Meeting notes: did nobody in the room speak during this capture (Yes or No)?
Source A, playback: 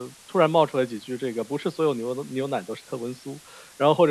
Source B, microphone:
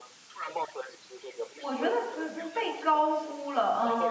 No